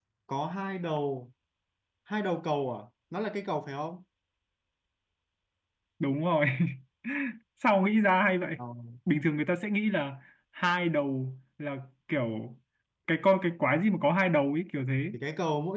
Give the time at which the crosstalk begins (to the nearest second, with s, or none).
none